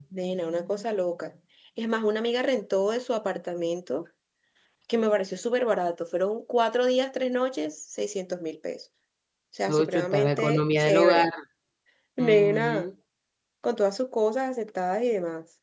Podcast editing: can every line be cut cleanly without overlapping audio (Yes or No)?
No